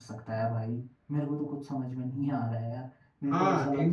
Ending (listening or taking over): taking over